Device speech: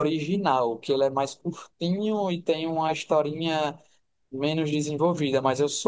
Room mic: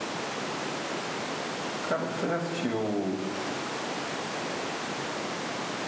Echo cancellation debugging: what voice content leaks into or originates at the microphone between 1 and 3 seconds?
user only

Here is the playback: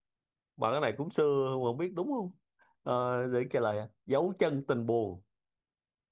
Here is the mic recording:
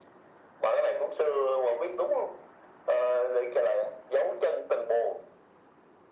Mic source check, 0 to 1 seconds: echo only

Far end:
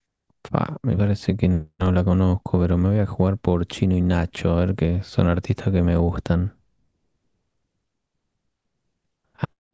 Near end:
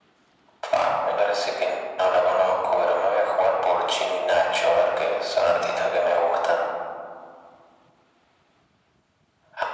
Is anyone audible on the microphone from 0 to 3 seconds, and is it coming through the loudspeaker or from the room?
echo only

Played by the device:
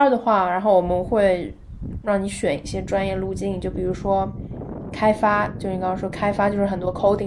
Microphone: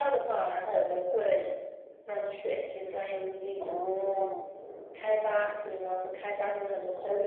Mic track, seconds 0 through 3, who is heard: echo only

